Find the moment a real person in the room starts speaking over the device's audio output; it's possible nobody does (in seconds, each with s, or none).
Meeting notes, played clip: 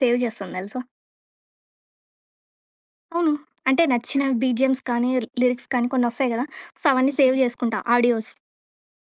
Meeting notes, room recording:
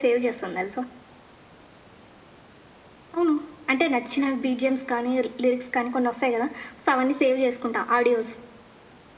none